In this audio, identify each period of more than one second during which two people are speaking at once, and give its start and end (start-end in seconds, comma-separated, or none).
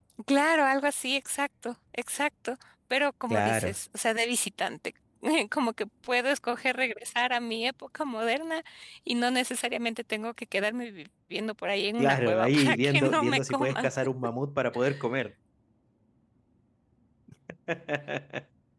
12.0-13.9